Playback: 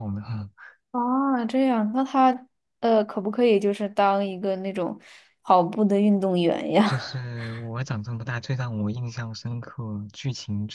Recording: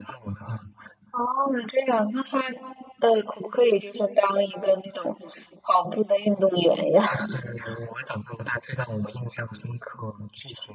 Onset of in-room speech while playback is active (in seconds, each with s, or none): none